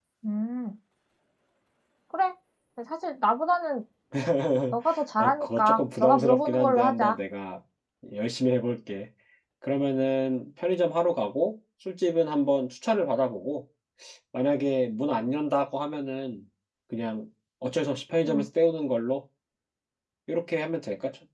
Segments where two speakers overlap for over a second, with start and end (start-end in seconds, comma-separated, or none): 5.2-7.2